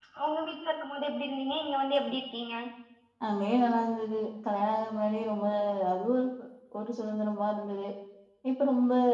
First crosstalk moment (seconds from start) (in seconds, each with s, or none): none